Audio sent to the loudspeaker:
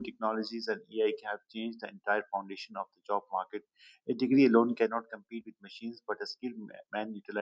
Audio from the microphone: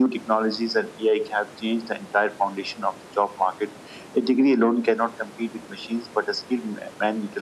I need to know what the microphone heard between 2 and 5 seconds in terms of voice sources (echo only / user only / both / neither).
echo only